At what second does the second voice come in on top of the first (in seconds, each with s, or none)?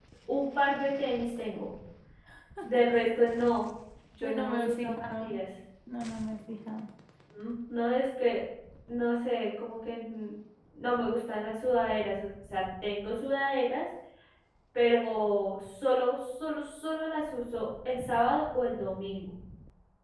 4.2 s